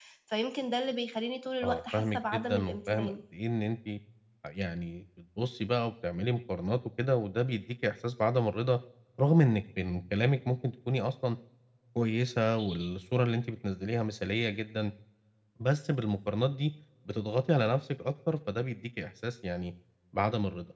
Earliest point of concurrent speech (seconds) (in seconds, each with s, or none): 1.6 s